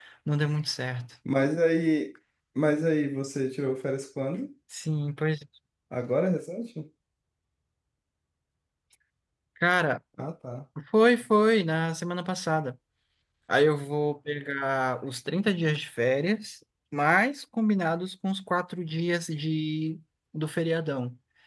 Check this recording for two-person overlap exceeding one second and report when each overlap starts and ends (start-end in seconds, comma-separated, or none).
none